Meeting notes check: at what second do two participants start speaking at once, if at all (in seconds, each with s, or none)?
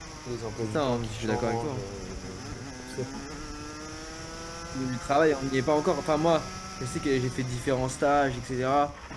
0.6 s